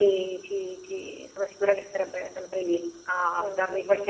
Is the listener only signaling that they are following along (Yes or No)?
Yes